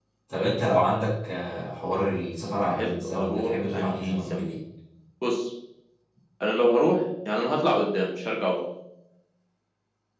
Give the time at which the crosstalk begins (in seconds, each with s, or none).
2.6 s